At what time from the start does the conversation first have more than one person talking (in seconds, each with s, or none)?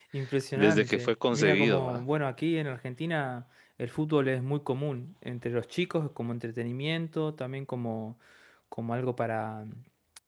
0.6 s